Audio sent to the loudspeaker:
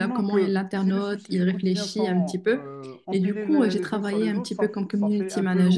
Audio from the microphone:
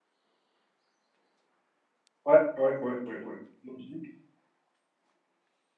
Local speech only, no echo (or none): ouais, ouais, ouais, ouais, ouais. Logique.